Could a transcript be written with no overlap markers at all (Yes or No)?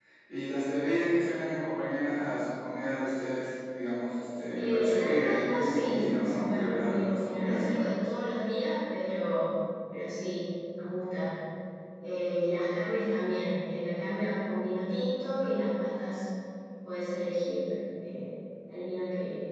No